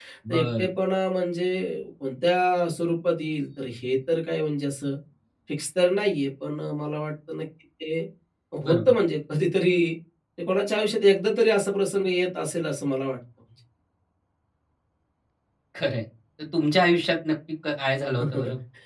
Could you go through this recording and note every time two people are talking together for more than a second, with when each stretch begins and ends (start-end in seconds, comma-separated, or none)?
none